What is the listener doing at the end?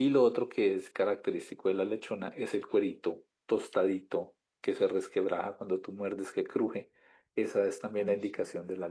listening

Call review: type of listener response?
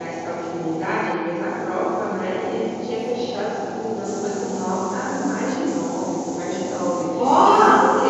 listening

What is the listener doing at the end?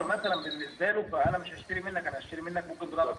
taking over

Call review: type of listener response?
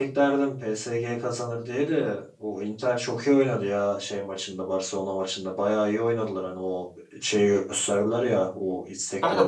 taking over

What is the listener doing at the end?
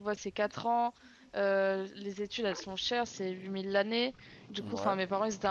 listening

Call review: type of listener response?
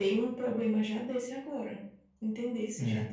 listening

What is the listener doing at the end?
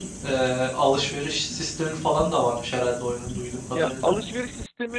taking over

